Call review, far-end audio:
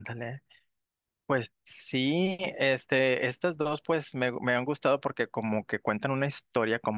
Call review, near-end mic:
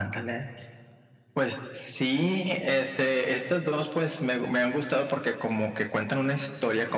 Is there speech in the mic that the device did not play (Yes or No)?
No